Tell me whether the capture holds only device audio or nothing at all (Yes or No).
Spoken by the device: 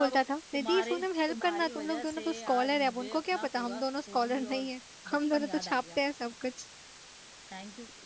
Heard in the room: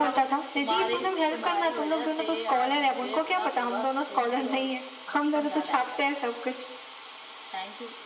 Yes